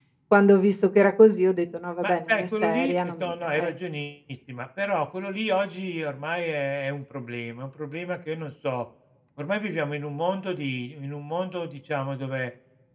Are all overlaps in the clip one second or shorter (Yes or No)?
No